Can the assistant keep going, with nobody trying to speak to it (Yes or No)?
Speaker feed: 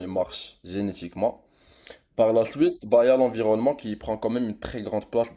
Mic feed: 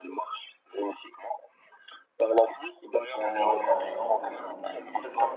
No